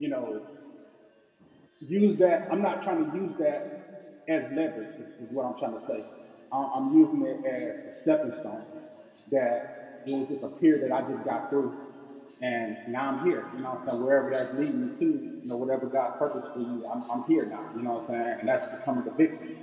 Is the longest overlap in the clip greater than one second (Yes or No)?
No